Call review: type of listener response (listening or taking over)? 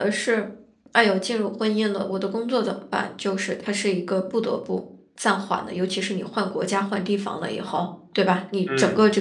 listening